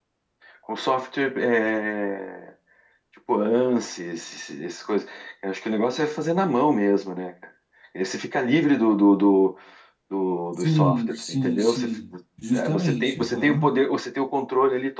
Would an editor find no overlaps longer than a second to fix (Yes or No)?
No